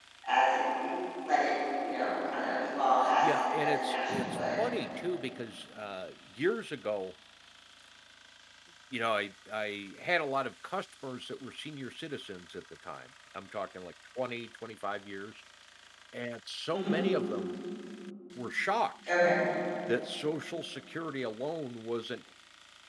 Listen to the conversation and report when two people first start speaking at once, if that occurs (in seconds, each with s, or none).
3.2 s